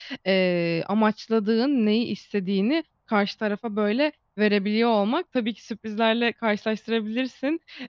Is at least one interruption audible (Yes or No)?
No